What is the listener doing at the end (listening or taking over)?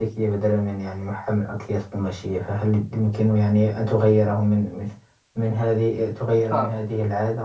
listening